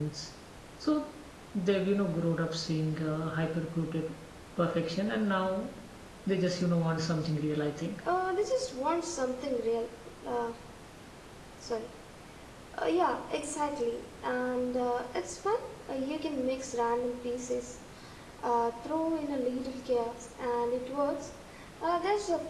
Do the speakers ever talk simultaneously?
No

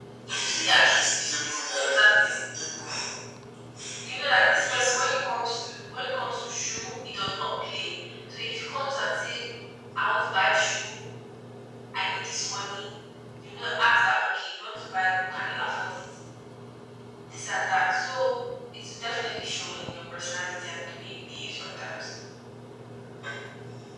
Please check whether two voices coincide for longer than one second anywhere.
Yes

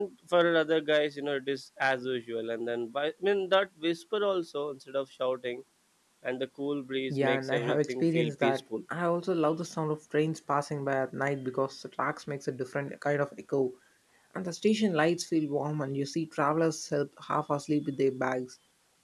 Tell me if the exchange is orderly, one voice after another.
No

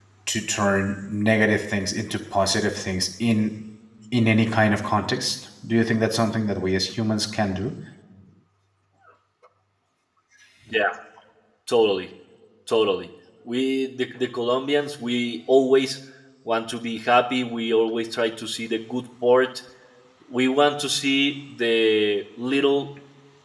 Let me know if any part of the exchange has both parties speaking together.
No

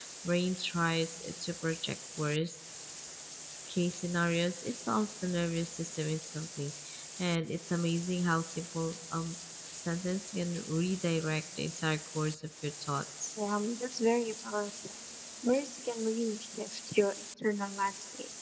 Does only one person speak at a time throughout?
Yes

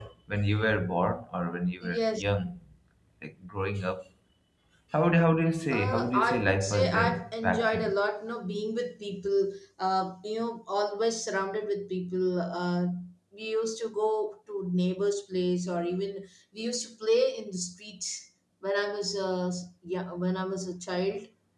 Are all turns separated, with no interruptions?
No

